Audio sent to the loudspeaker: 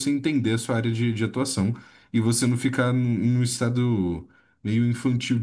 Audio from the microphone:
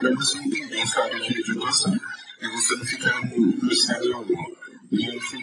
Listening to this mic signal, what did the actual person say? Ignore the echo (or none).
none